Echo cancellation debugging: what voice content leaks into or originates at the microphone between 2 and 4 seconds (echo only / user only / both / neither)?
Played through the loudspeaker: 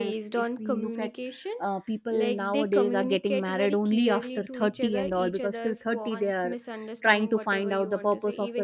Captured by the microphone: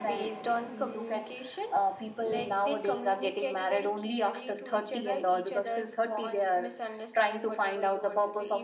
echo only